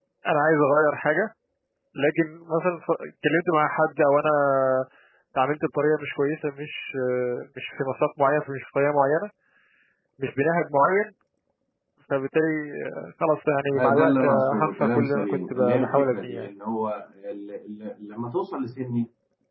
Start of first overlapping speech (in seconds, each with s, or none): 13.7 s